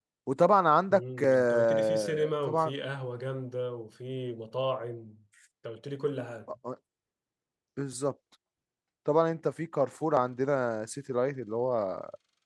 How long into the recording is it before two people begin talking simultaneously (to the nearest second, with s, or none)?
1 s